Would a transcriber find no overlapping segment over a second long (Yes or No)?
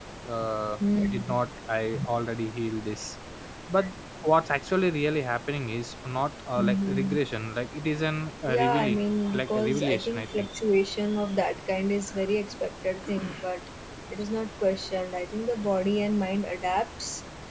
No